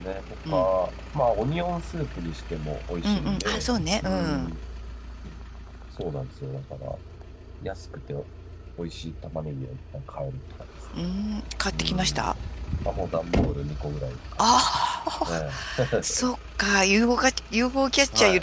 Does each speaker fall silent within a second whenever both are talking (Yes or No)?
No